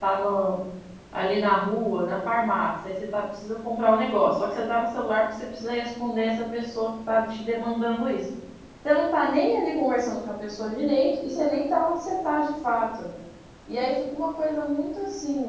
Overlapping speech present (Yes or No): No